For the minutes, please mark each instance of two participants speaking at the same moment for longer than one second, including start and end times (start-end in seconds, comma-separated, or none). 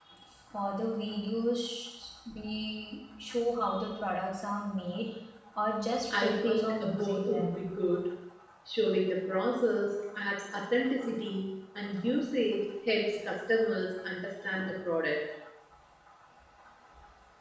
6.2-7.6